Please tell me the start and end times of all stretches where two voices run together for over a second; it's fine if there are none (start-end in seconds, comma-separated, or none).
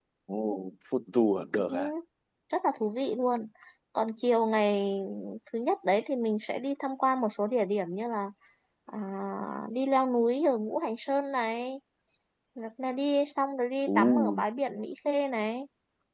none